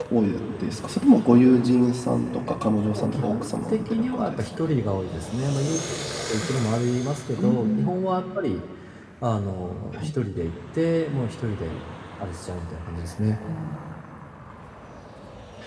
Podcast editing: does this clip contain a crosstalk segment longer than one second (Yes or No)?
Yes